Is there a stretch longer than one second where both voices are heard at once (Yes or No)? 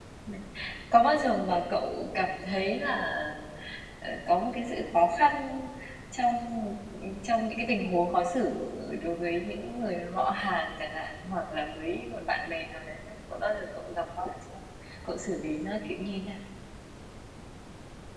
No